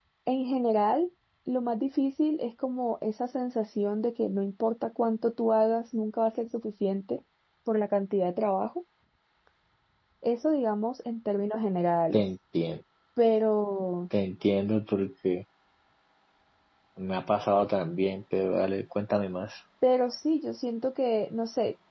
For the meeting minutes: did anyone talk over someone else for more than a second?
No

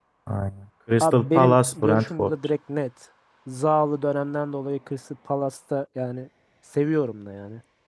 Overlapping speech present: Yes, from 1.0 s

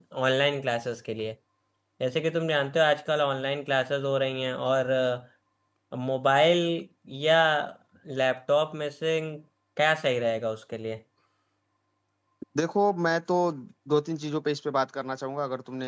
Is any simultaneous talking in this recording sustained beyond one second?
No

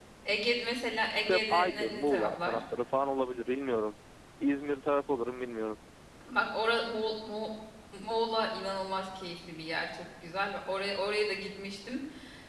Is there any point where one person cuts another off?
Yes, from 1.2 s

